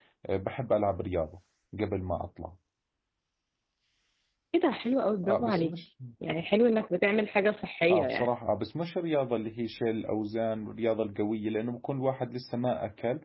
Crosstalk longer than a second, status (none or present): none